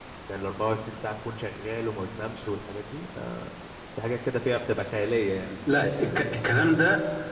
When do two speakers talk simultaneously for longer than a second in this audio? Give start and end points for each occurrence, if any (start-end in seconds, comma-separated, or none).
none